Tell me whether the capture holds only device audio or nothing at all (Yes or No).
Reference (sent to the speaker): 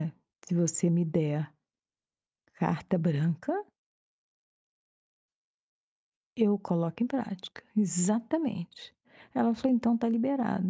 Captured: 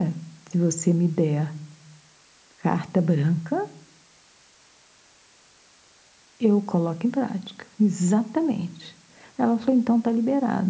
Yes